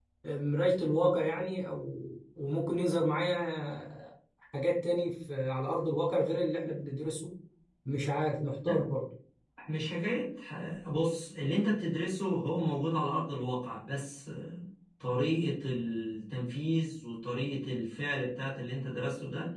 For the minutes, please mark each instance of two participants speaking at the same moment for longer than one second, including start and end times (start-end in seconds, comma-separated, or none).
none